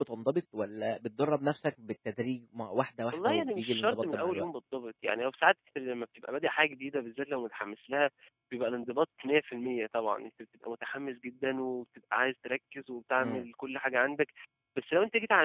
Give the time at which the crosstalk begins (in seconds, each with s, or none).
3.1 s